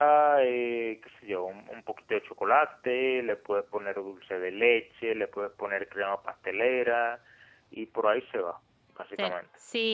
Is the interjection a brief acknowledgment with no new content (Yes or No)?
No